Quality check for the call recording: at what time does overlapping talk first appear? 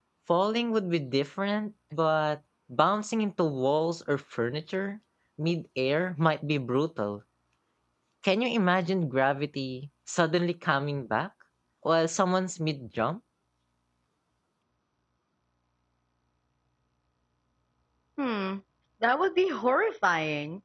none

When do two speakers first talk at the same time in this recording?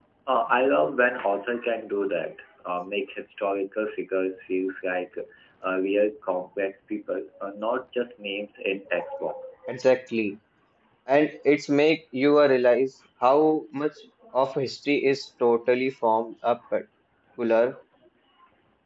none

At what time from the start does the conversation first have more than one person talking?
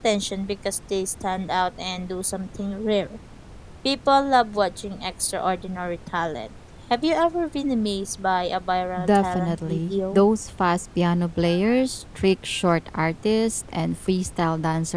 9.0 s

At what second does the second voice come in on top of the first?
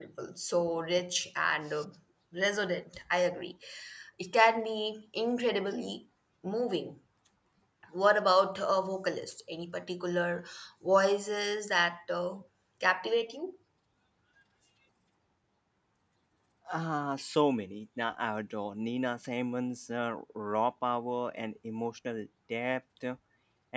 none

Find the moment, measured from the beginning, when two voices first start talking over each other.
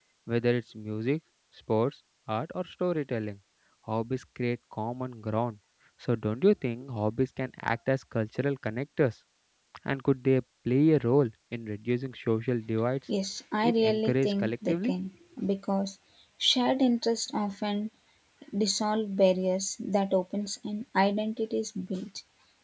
13.6 s

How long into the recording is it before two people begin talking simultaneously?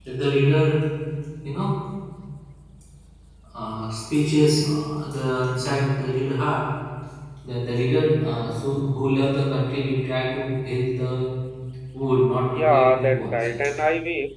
12.4 s

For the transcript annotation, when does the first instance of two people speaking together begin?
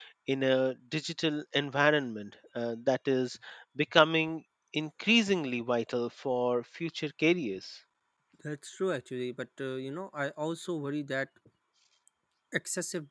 none

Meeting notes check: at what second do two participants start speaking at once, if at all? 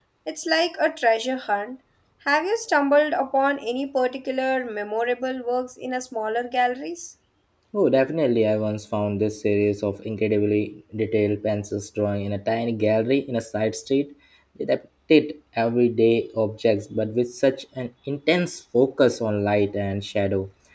none

